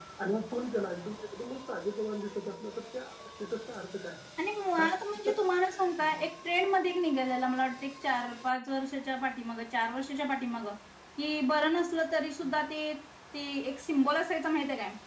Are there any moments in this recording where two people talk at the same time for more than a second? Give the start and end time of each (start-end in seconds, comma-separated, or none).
none